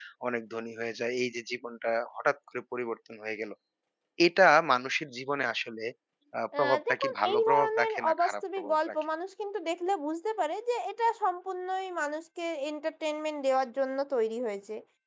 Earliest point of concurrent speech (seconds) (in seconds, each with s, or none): 6.6 s